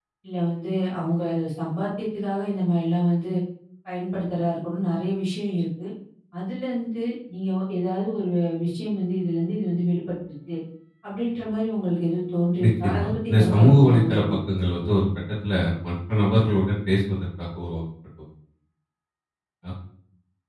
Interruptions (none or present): present